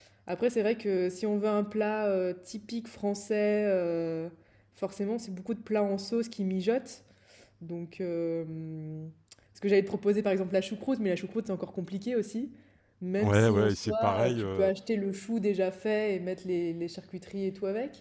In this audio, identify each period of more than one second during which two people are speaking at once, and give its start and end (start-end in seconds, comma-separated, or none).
13.2-14.7